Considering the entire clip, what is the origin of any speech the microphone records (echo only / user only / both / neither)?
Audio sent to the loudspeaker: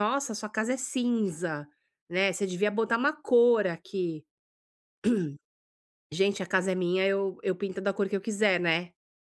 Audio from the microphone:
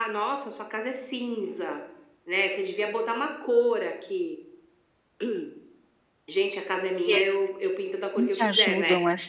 both